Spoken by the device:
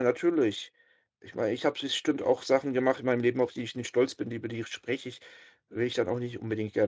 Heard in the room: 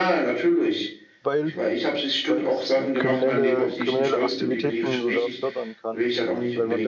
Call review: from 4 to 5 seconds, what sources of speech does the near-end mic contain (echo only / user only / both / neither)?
both